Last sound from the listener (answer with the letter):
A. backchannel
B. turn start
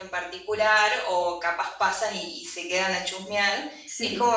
A